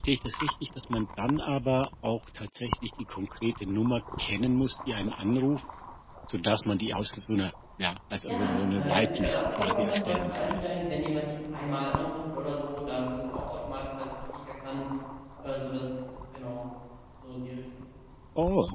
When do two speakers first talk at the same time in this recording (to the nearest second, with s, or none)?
8 s